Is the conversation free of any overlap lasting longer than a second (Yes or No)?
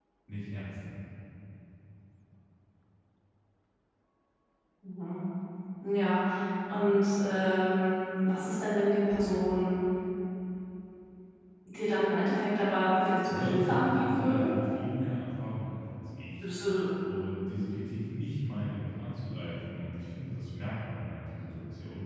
No